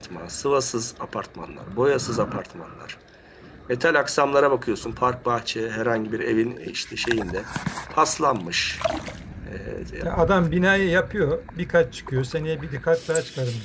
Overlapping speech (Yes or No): No